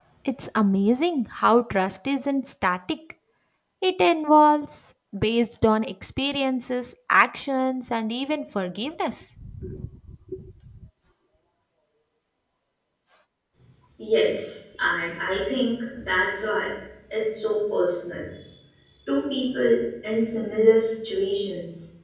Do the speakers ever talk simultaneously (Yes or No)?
No